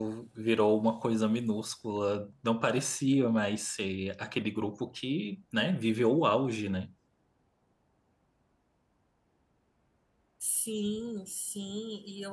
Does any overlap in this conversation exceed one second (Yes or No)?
No